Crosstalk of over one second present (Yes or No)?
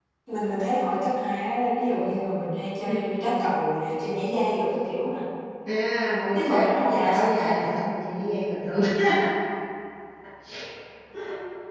Yes